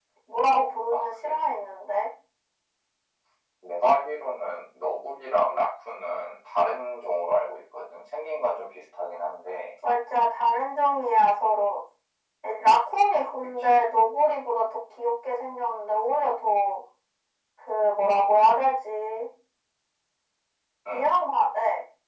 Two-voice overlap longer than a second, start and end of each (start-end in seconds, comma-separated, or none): none